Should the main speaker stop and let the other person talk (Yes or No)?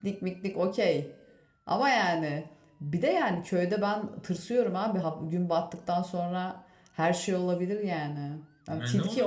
Yes